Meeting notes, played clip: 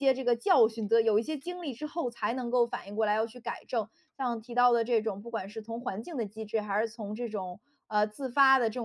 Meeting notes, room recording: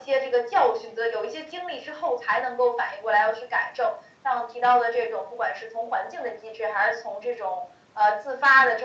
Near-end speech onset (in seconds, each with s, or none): none